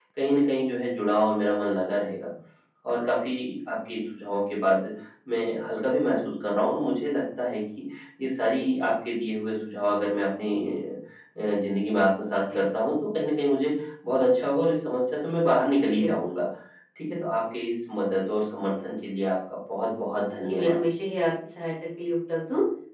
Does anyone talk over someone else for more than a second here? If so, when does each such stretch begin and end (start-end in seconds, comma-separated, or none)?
none